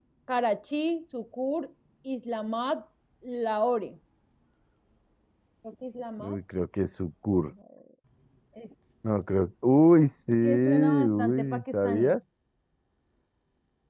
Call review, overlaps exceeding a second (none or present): present